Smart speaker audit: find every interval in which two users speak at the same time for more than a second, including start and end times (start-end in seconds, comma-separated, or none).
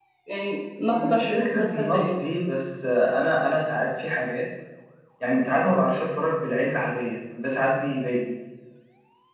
0.8-2.2